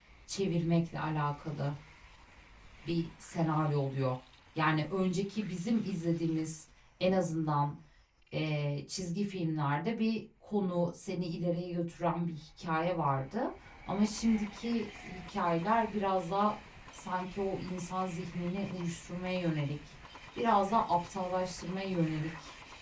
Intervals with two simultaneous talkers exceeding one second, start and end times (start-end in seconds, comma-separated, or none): none